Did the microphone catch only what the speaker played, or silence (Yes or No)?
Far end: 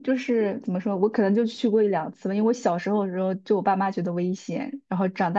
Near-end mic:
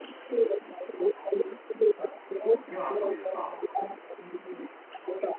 No